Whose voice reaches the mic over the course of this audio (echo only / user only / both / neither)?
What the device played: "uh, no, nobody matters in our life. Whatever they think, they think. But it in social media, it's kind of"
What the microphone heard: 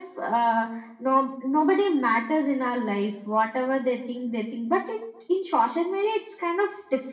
echo only